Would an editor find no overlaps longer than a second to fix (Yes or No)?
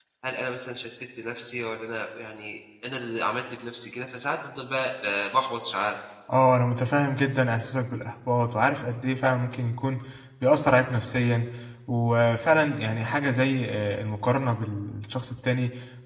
Yes